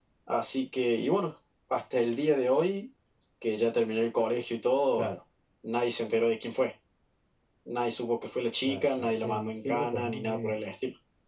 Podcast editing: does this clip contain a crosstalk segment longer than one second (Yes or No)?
Yes